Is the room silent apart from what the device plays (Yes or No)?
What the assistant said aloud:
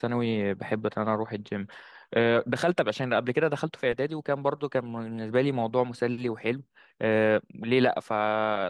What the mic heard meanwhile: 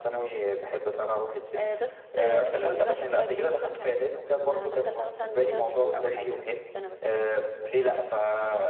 No